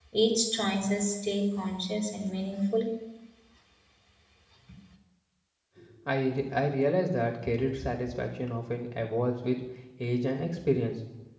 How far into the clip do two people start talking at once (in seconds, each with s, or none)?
none